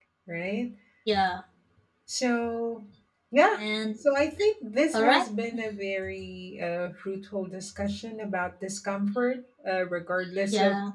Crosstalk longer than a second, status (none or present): none